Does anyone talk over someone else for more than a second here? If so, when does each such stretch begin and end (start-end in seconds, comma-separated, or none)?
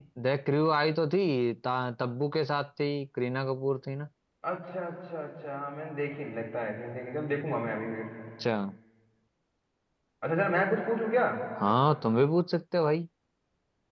none